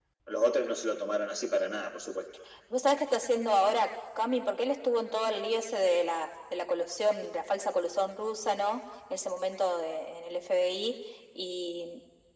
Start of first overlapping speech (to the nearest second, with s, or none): none